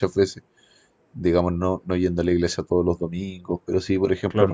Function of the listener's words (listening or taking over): listening